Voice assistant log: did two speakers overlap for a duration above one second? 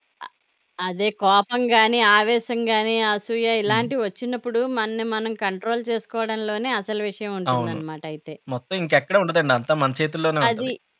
No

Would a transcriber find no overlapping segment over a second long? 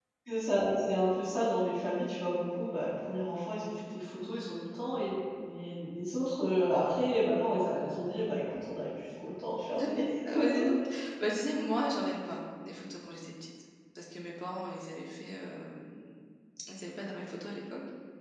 Yes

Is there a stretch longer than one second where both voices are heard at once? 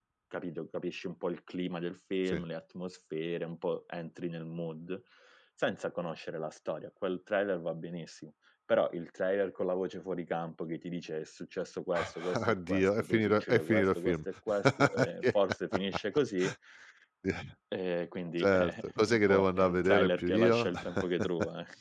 Yes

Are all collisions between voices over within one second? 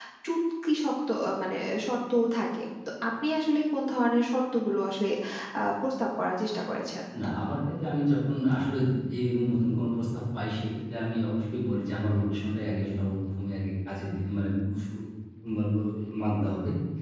Yes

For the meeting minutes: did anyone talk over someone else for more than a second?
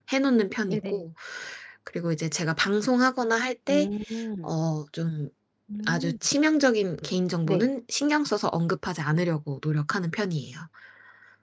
No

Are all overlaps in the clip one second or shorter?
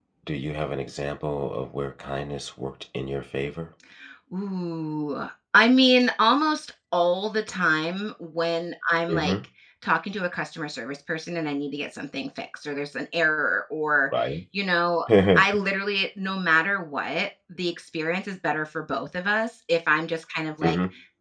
Yes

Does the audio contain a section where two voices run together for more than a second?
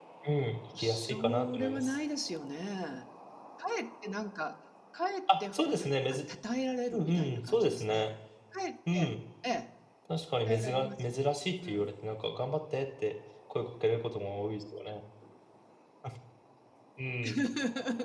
Yes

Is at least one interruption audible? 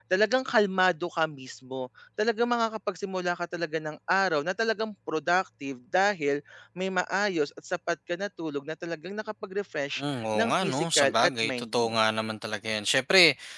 Yes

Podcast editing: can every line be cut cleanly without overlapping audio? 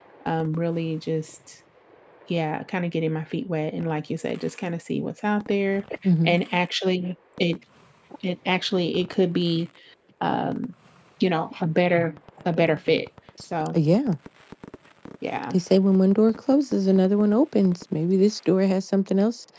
Yes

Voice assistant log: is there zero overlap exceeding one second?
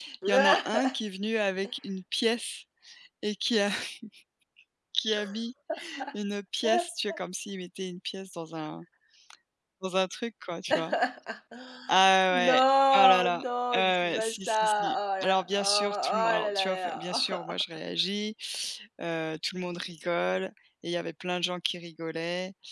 No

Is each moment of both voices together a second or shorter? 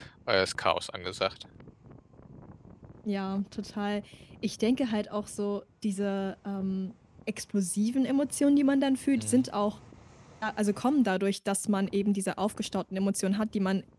Yes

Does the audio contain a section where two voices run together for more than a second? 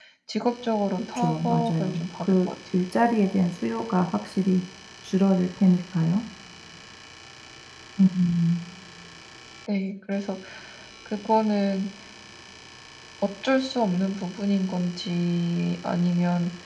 Yes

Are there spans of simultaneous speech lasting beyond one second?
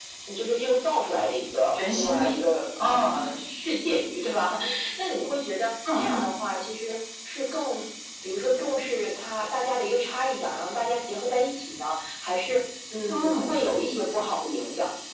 No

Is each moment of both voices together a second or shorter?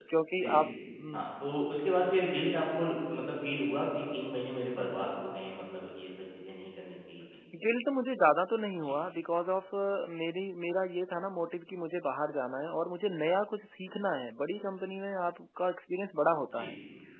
Yes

